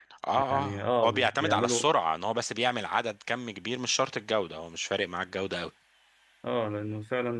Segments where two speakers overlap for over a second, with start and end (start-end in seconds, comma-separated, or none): 0.5-1.9